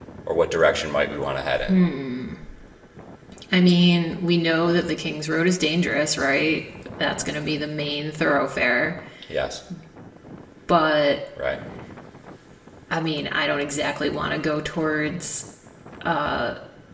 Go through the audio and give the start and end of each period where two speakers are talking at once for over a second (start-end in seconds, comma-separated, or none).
none